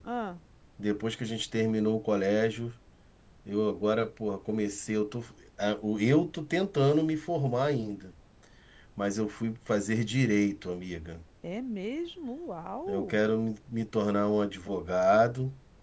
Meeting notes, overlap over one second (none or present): none